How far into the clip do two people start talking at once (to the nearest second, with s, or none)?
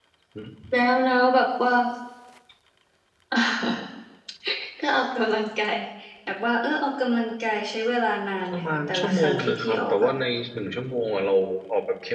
9 s